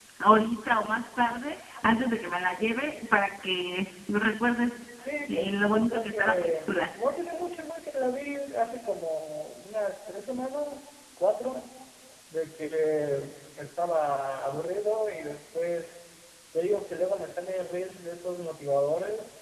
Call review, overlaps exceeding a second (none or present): present